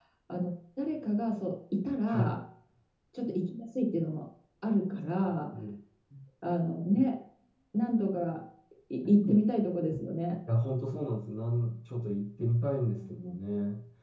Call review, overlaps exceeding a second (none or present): none